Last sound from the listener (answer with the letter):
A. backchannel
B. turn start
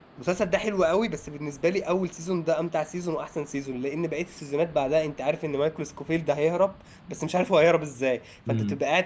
A